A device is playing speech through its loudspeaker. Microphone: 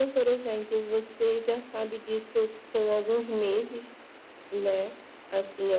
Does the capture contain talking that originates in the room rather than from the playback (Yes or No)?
No